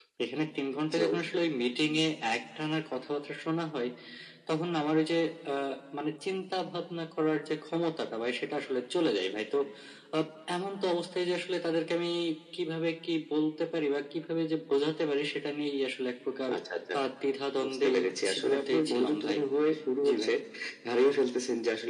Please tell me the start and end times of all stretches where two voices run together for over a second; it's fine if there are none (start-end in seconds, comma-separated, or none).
17.6-19.4